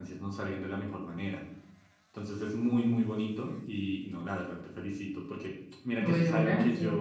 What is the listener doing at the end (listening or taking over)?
listening